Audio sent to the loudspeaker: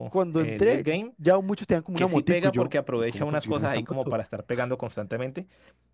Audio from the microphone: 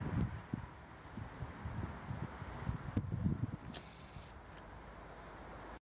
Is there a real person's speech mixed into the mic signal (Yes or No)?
No